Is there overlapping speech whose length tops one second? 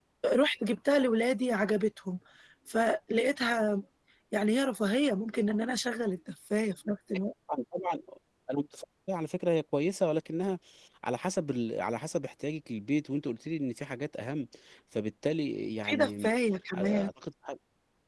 No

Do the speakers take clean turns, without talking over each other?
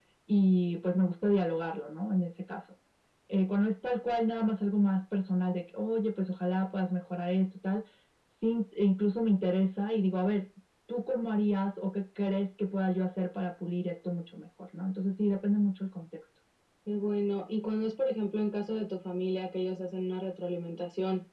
Yes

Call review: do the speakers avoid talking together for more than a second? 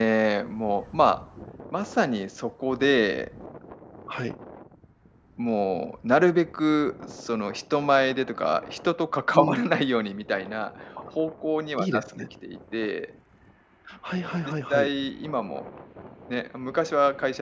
Yes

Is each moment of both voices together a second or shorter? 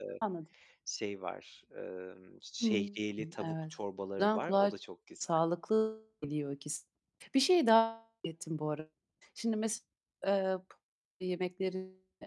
Yes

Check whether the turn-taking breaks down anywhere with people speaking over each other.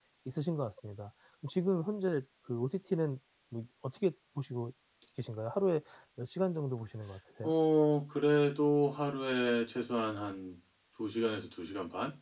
No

